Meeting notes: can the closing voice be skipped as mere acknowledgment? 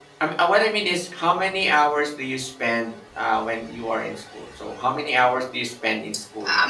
No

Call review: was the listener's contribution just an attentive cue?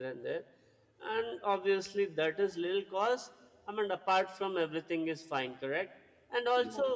Yes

